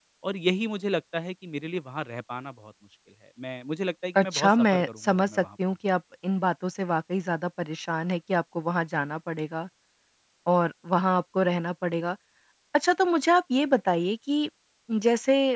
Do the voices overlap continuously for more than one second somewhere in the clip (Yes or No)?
Yes